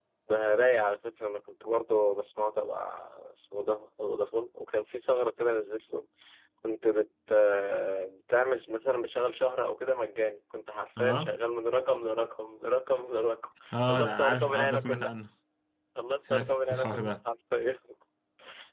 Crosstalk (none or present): present